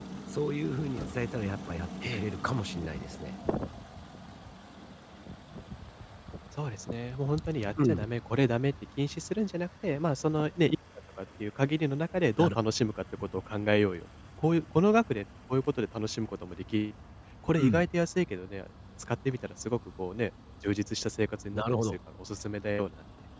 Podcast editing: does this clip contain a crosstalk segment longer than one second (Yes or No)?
No